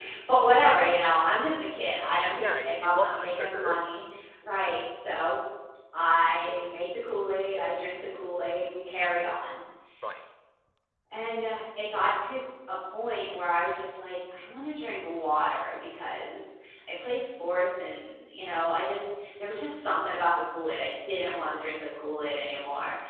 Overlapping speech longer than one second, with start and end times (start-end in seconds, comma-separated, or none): 2.4-3.8